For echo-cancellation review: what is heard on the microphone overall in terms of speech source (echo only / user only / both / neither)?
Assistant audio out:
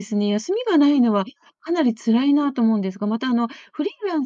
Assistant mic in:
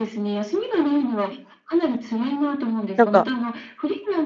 both